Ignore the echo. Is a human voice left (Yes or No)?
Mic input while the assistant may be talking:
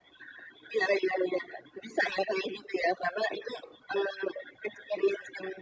No